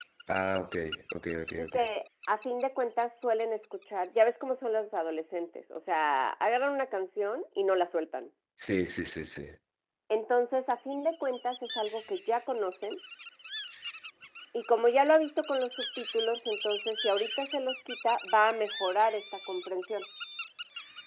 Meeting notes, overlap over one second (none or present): none